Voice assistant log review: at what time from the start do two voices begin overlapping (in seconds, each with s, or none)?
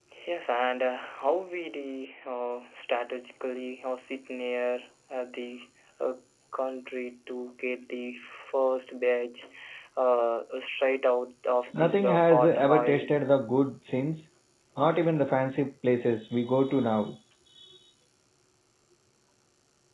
11.7 s